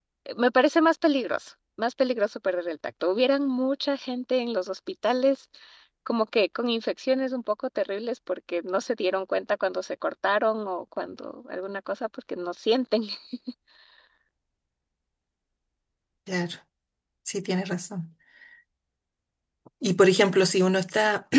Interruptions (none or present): none